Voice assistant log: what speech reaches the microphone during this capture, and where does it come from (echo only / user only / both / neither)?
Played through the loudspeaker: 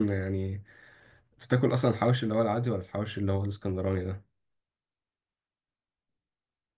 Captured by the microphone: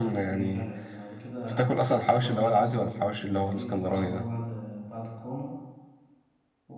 both